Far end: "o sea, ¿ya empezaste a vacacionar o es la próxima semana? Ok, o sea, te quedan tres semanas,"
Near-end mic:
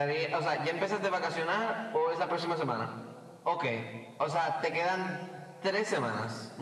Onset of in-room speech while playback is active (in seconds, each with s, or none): none